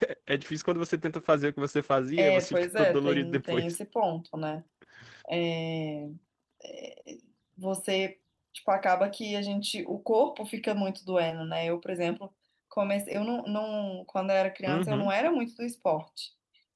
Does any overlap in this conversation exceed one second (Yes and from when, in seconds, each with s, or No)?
Yes, from 2.2 s